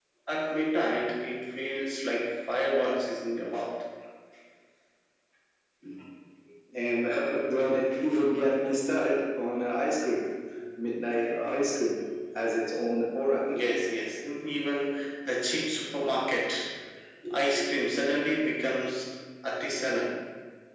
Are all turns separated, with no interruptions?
Yes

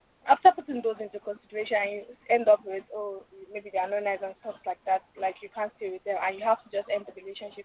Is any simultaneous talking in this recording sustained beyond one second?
No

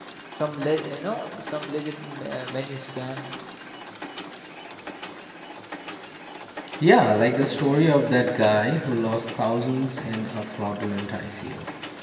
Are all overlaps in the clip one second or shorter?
Yes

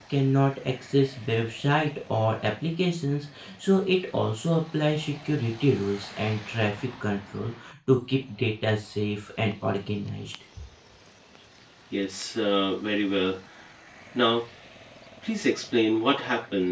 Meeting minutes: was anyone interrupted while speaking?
No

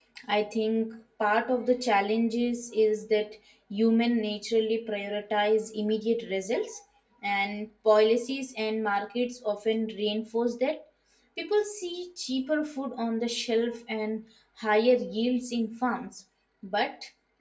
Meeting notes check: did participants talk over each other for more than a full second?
No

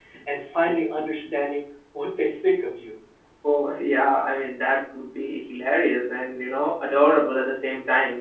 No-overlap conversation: Yes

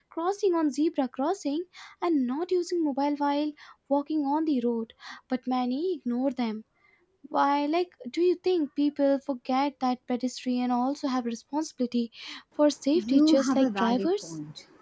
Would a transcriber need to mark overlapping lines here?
Yes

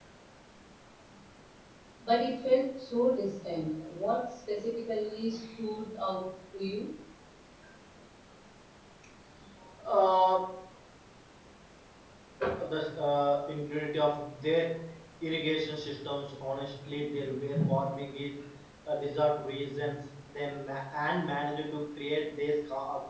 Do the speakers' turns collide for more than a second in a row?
No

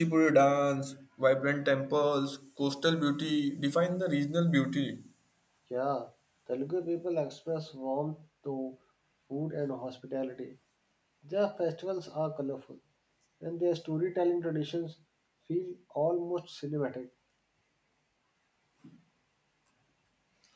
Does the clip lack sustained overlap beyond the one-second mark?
Yes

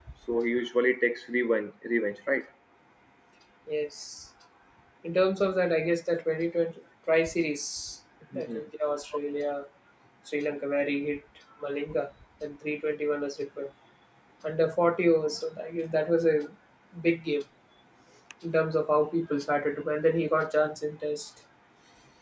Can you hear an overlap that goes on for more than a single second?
No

